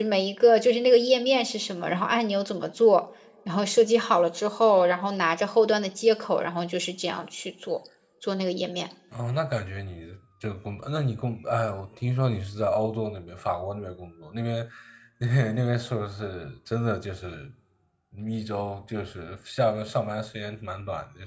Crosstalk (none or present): none